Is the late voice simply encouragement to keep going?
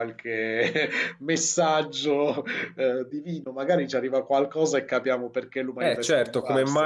No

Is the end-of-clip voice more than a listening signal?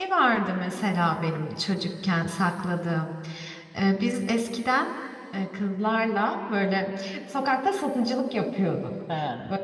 No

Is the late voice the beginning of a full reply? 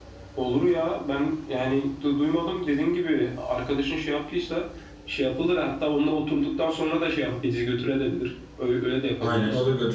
Yes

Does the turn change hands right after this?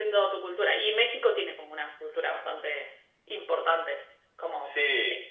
Yes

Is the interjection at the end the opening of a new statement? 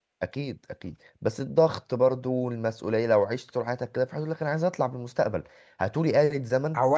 Yes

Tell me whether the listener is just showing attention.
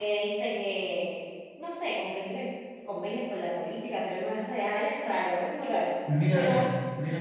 No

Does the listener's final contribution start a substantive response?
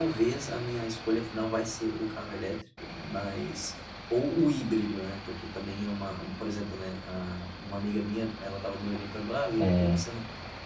No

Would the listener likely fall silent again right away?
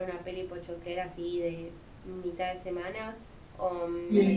No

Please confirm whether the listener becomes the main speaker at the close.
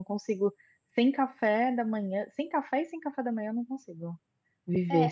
Yes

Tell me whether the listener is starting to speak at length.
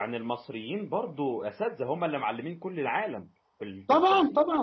Yes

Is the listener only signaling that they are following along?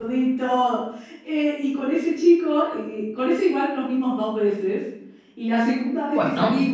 Yes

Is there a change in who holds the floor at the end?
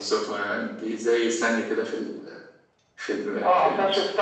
Yes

